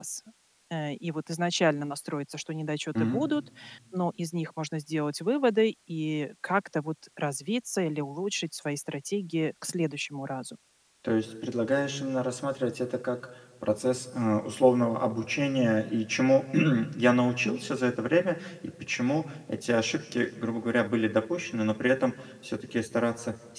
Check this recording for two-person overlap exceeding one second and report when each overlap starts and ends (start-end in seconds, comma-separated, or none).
none